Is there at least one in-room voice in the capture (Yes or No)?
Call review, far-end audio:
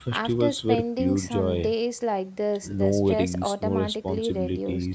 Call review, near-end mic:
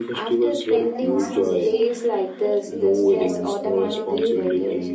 Yes